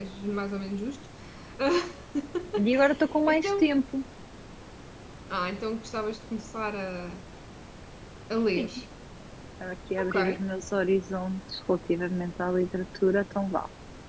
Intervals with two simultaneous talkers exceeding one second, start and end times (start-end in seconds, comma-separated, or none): none